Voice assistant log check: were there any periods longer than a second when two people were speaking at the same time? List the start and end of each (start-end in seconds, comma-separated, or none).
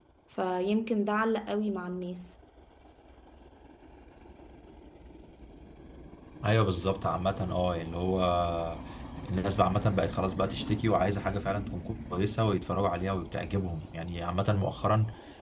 none